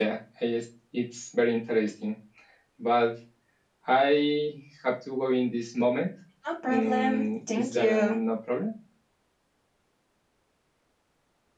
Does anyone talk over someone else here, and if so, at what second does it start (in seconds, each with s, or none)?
6.7 s